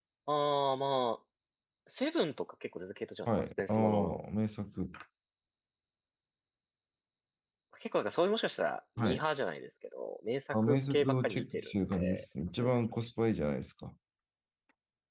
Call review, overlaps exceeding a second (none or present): present